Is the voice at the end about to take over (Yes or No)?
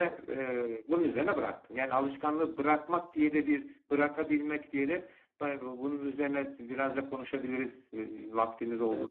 Yes